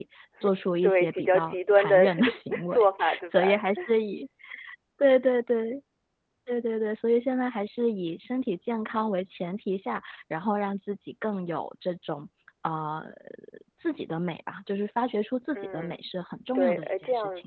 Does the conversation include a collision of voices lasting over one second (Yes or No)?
Yes